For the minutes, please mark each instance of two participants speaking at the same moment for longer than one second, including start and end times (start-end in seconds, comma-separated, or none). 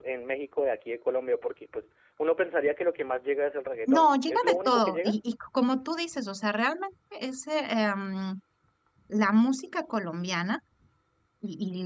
3.9-5.1